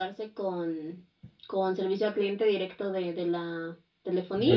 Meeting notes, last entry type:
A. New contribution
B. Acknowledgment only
A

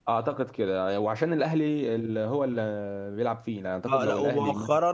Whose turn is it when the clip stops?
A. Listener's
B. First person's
A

